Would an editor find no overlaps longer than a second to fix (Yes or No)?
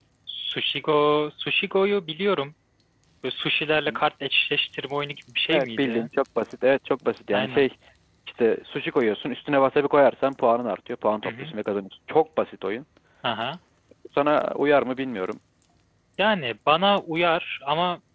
Yes